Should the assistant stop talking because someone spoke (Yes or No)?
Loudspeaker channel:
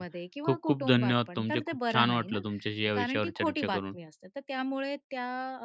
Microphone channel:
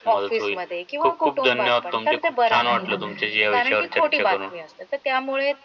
Yes